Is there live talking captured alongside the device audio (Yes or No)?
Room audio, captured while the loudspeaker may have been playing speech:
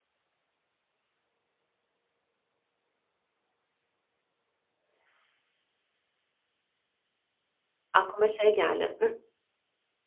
Yes